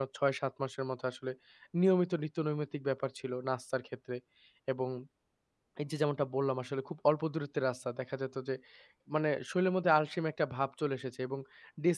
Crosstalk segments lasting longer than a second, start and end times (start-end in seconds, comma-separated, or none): none